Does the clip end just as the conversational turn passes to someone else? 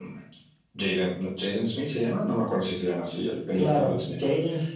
Yes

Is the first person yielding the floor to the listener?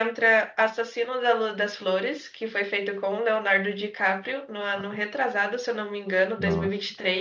Yes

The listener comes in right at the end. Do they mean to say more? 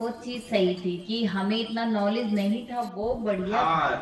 Yes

